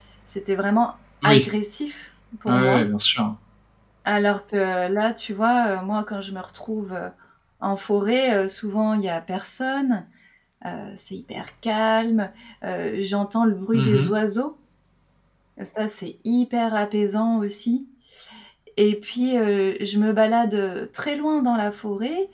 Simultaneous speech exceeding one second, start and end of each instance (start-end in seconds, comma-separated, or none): none